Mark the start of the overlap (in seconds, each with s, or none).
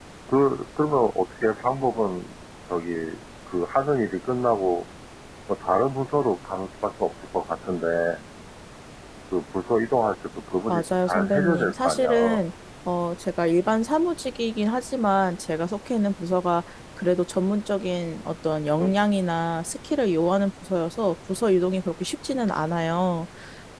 10.7 s